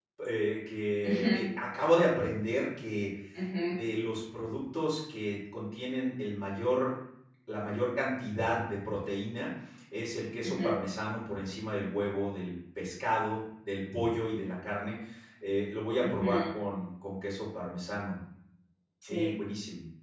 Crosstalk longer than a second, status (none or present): none